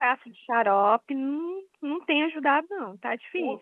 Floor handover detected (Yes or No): Yes